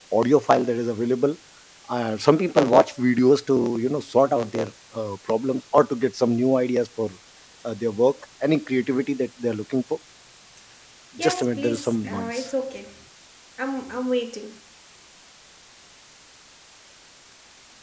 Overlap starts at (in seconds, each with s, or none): 11.2 s